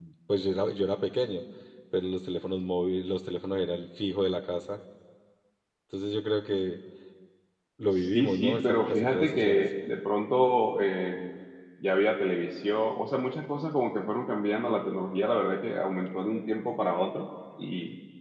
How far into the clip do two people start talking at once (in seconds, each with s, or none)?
8.0 s